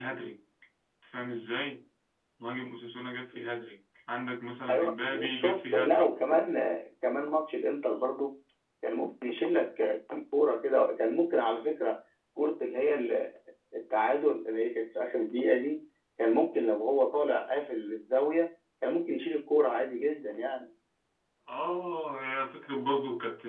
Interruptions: present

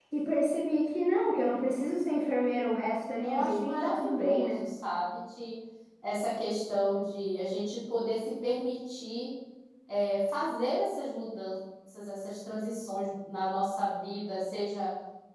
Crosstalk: present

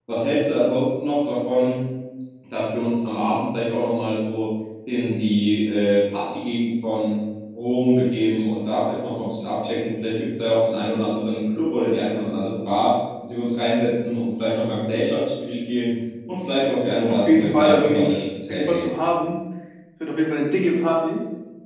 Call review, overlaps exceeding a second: present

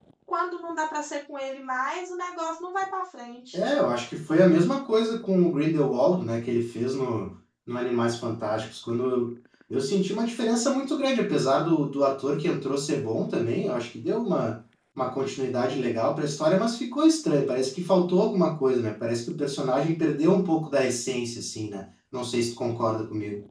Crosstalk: none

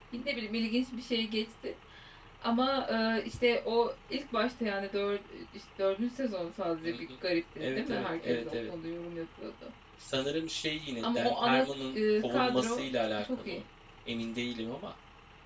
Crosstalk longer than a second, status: present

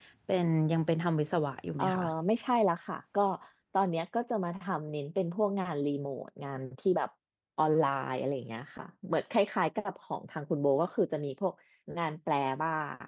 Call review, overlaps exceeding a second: none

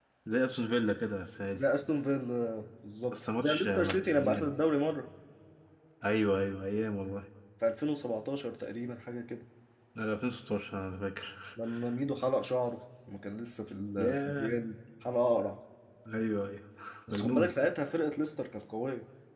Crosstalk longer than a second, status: present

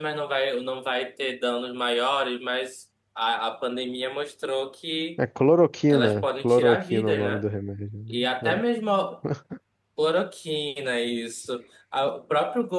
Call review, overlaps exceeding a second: present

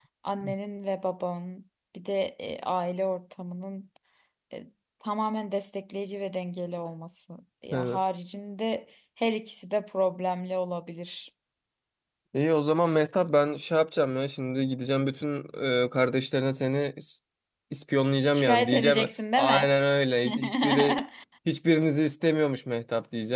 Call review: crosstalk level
present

